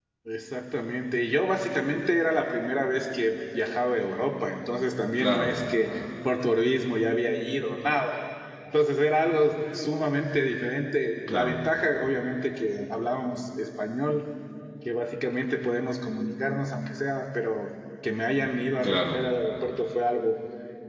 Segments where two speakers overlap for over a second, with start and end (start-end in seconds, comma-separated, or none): none